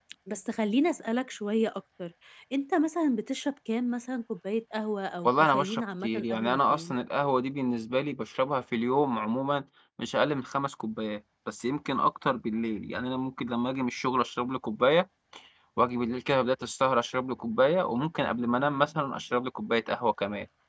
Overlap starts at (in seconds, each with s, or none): 5.2 s